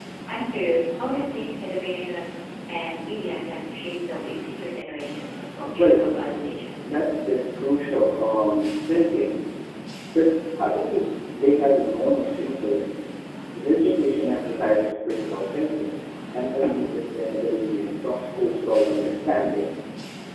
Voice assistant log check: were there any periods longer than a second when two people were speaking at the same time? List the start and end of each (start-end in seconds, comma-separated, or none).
none